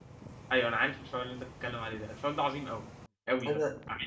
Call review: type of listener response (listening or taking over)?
listening